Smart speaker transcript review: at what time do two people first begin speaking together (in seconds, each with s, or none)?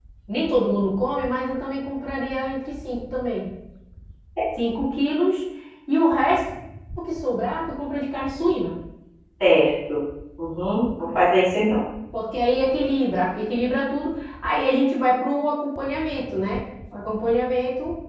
none